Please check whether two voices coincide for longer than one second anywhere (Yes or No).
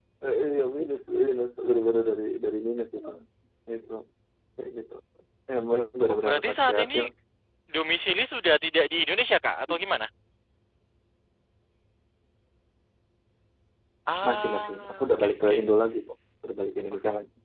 Yes